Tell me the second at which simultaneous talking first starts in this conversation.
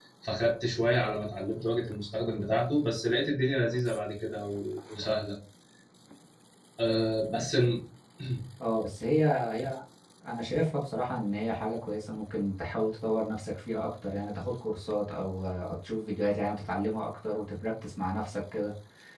none

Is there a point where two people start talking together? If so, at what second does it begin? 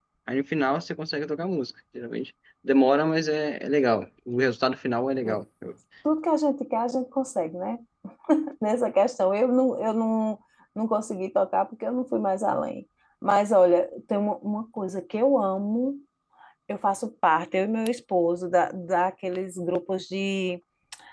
none

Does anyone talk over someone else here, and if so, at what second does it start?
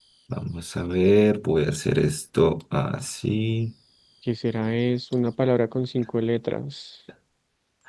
none

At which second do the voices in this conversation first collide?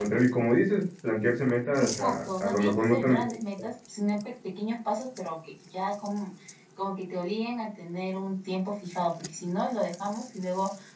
1.8 s

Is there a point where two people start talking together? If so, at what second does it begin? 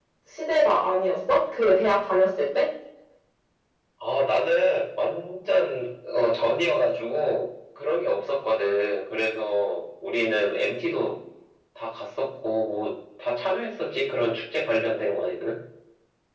none

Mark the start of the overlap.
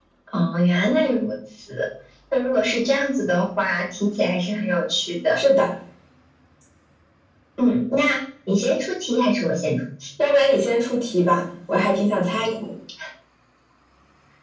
none

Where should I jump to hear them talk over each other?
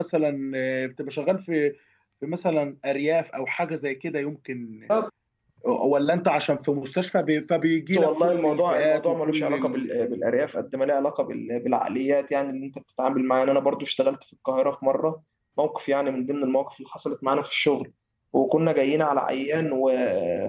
7.9 s

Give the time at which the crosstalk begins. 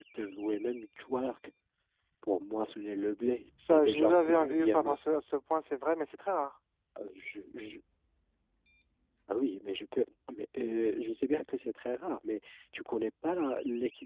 3.6 s

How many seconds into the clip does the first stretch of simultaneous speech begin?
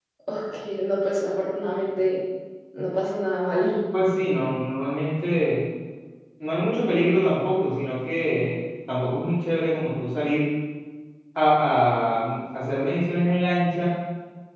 none

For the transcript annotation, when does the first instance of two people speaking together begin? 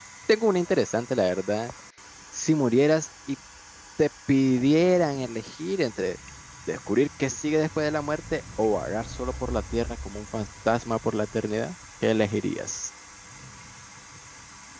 none

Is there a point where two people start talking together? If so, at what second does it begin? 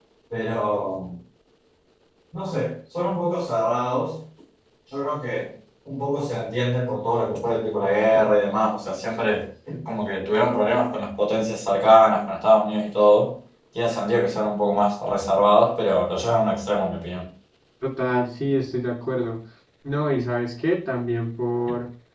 none

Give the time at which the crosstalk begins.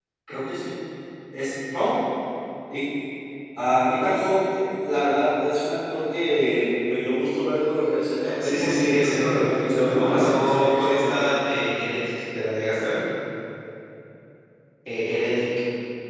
8.2 s

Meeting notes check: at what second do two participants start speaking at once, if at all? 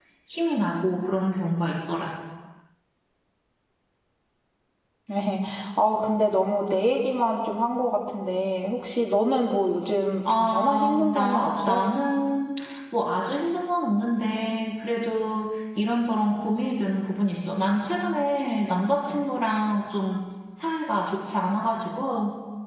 10.2 s

